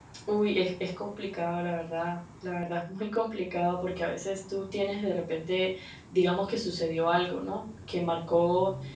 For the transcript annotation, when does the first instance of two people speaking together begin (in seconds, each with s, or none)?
none